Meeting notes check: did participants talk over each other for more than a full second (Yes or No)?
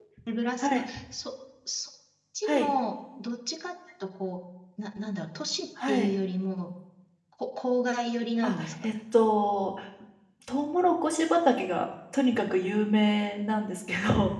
No